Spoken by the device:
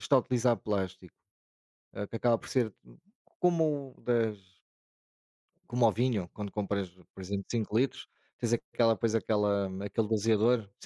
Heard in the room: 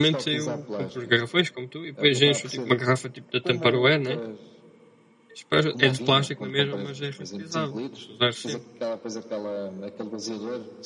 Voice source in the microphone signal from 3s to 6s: both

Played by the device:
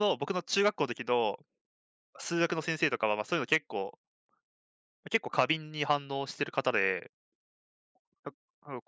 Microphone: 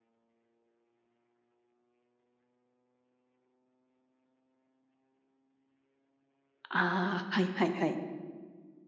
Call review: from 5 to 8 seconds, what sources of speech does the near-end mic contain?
user only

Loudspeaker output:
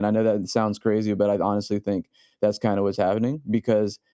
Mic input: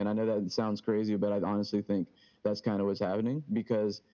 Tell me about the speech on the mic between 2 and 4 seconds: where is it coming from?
echo only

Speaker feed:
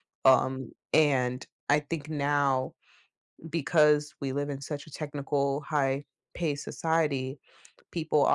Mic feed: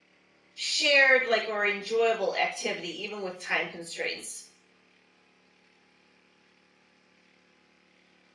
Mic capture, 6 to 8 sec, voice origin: neither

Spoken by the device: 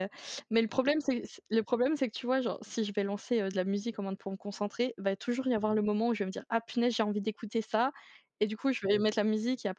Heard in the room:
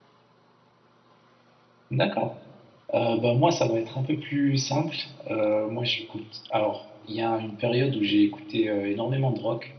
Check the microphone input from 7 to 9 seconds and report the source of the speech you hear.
user only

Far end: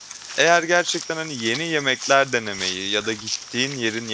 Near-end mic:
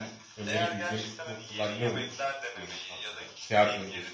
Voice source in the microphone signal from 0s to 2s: both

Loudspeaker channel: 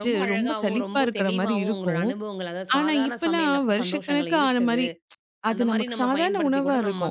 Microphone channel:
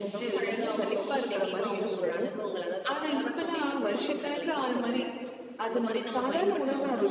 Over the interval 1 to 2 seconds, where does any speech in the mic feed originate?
echo only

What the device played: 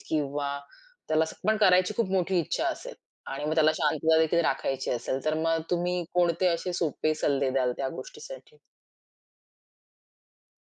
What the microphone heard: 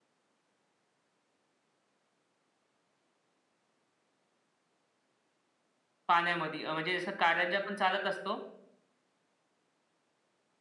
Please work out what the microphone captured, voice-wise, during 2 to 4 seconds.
neither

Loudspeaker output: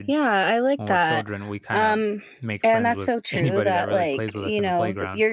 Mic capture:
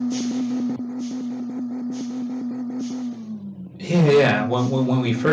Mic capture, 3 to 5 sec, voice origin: user only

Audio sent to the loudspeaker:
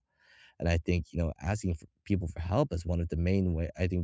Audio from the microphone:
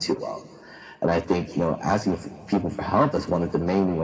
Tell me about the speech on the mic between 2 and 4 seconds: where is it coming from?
echo only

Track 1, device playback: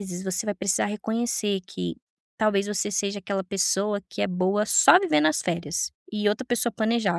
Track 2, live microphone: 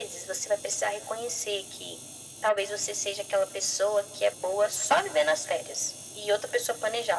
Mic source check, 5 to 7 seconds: echo only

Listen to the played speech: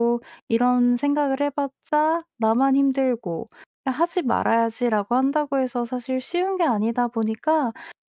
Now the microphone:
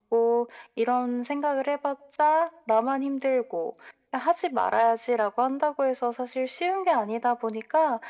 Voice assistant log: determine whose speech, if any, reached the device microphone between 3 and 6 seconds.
echo only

